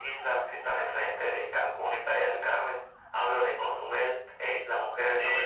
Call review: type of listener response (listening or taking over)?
taking over